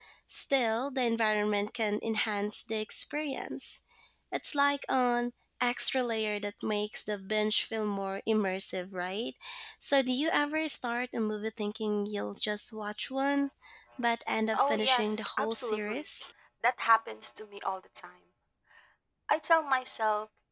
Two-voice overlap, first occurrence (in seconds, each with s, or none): 14.5 s